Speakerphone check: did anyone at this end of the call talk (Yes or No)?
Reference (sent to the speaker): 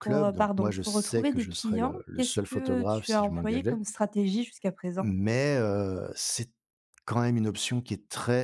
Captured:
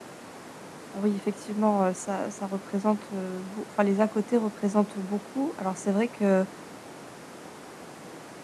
Yes